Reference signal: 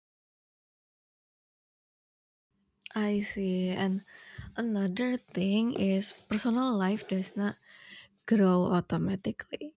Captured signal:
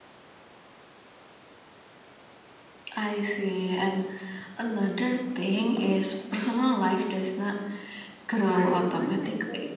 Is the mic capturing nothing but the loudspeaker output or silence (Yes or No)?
No